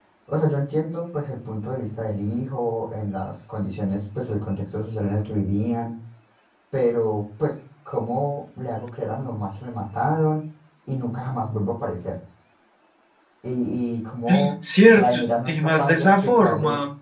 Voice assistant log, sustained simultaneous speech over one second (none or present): present